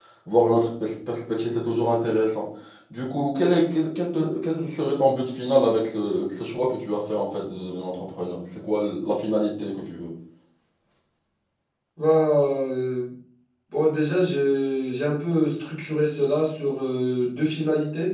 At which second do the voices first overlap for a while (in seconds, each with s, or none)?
none